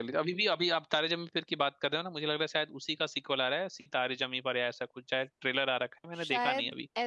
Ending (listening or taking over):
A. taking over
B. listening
A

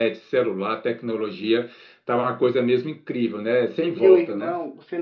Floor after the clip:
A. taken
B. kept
A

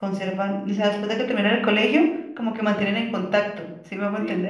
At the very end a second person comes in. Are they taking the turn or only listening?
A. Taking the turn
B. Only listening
A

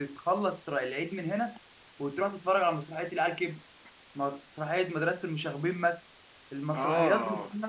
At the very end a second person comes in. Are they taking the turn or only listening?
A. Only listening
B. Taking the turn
A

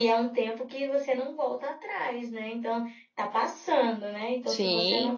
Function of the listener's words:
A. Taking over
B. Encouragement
B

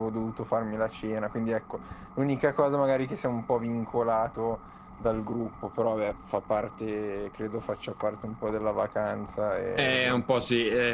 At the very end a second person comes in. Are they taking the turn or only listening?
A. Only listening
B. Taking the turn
B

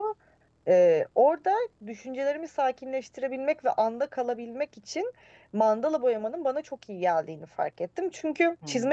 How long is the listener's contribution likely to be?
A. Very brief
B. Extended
A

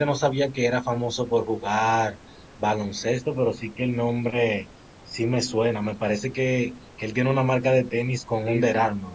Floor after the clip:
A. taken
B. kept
A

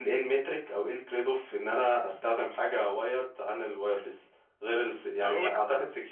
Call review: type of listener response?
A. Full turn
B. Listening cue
B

